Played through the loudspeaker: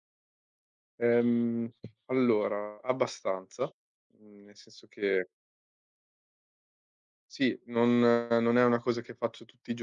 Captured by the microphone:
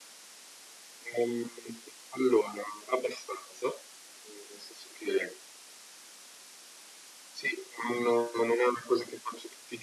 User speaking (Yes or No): No